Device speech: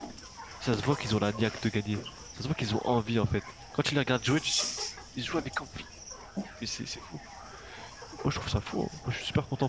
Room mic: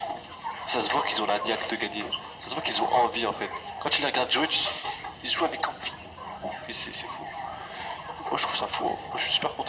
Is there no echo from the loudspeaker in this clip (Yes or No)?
No